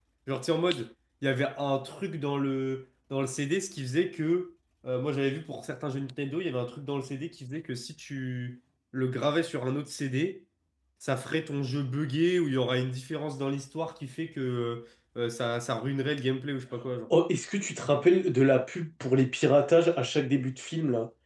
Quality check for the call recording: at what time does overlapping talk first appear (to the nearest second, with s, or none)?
none